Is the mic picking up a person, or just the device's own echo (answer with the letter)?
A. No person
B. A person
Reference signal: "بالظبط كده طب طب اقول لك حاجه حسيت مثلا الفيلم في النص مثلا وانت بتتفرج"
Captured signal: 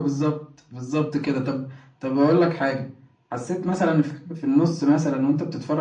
A